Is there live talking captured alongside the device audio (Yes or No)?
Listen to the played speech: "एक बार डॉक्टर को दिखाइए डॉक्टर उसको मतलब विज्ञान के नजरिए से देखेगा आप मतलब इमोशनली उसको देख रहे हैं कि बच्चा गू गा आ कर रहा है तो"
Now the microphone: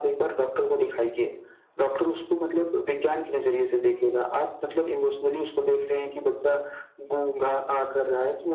No